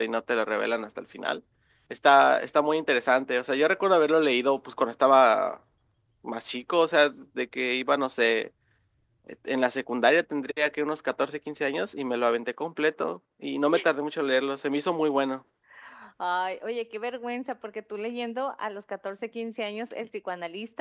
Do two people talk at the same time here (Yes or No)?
No